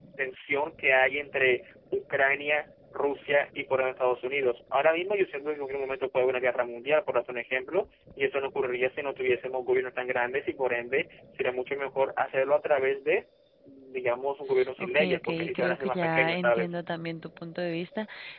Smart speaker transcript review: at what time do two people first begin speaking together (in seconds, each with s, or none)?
14.8 s